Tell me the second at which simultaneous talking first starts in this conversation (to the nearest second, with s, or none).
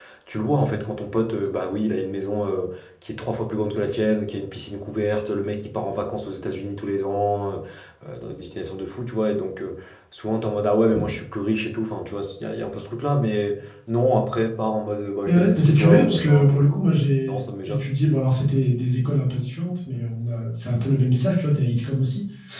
15 s